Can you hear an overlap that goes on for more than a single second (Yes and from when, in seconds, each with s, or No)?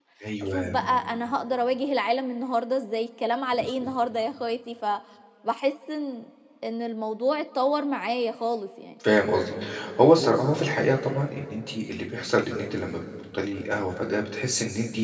No